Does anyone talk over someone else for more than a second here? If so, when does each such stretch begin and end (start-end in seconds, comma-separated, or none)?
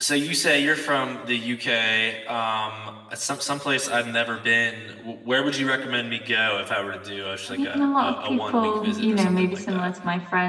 7.5-9.9